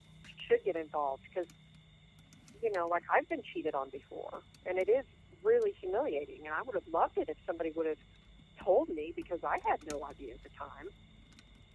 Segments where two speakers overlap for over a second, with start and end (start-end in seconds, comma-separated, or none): none